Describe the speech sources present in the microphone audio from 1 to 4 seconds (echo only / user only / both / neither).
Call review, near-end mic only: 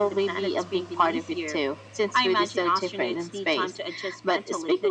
echo only